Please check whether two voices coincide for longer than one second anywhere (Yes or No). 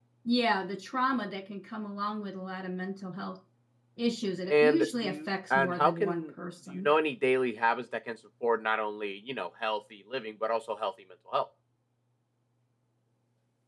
Yes